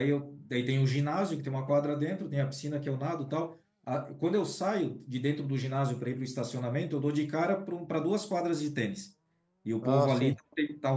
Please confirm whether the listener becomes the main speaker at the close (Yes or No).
No